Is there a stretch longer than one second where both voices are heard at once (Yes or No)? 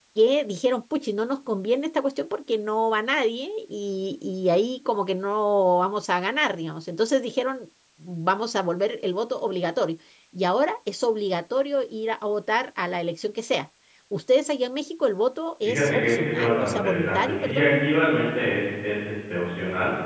Yes